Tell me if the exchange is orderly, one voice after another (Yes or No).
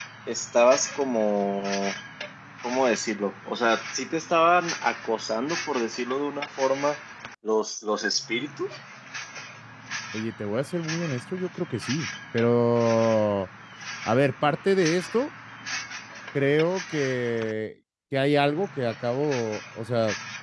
Yes